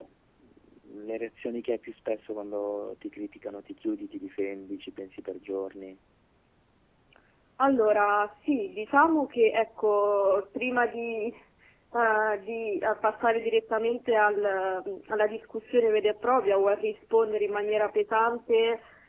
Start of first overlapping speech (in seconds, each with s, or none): none